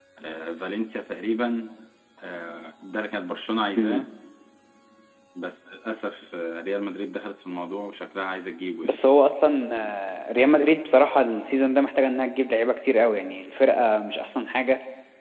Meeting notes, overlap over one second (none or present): none